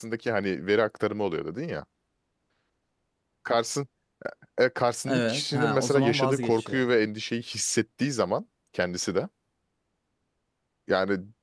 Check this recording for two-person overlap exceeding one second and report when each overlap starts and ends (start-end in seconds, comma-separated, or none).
5.1-6.9